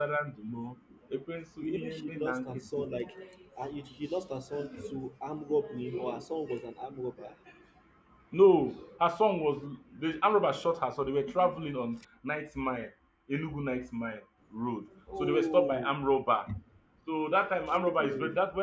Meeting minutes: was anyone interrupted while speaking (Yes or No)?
Yes